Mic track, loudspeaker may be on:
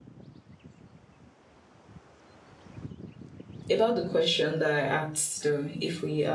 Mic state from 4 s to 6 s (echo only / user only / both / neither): user only